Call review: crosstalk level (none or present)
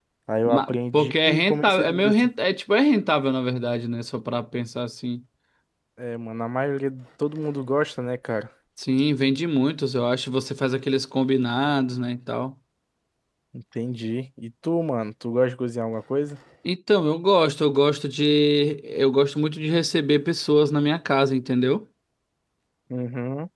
present